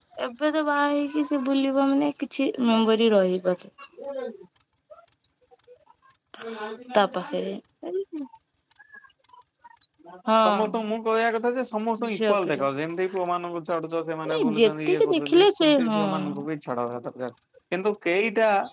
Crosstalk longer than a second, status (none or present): present